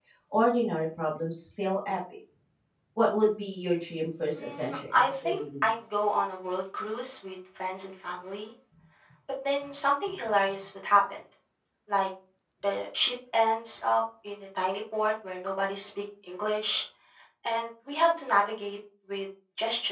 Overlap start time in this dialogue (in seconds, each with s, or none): 4.4 s